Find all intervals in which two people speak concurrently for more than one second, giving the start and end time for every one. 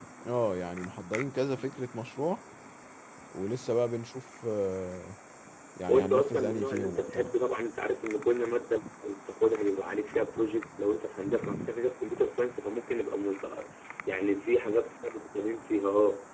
5.9-7.3

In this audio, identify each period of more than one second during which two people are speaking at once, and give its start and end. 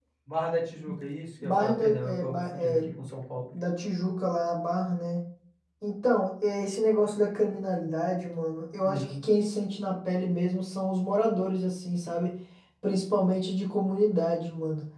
1.4-2.8

